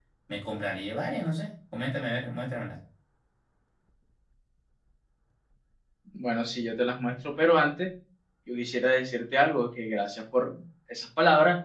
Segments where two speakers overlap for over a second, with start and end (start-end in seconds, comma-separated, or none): none